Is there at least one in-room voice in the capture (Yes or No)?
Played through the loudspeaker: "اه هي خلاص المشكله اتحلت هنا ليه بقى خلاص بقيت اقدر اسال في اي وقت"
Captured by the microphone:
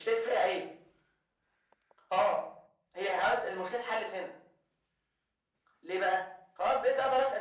No